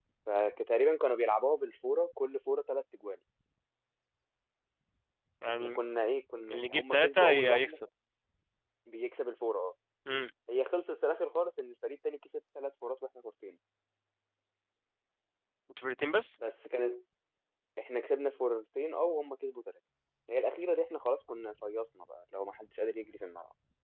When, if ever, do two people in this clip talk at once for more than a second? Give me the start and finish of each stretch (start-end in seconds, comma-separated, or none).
6.5-7.8